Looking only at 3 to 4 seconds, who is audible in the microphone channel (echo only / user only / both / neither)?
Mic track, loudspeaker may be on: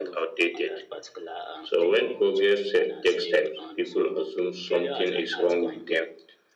both